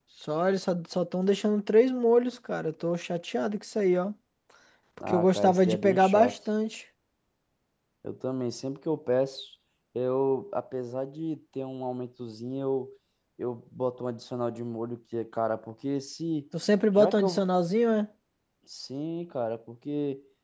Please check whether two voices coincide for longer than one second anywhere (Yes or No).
Yes